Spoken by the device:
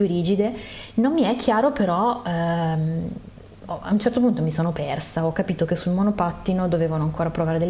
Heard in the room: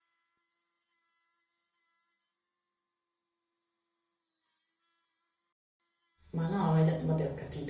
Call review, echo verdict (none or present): none